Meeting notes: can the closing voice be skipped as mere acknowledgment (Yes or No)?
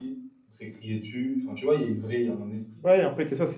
No